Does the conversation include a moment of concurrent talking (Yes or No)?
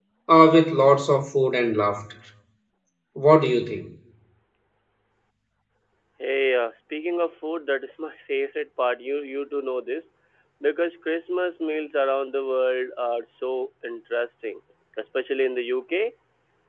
No